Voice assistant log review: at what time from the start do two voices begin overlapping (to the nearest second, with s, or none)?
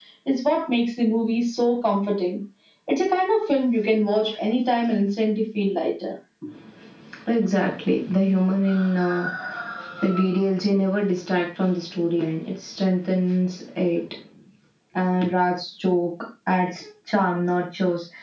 none